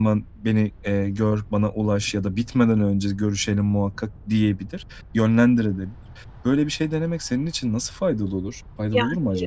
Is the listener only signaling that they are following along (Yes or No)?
No